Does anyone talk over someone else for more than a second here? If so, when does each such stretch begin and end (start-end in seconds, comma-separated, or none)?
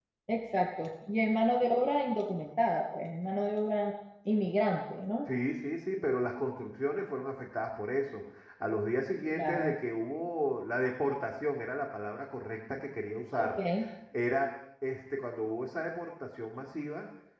none